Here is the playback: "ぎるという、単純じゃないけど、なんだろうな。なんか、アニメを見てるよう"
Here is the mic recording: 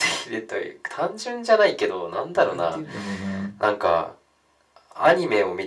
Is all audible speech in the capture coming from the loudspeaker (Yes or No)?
No